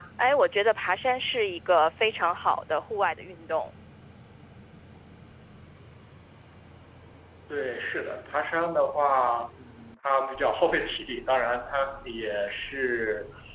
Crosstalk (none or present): none